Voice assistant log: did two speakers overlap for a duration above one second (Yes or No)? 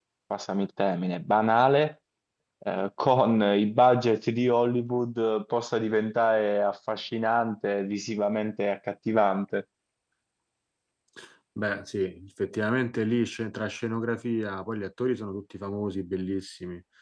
No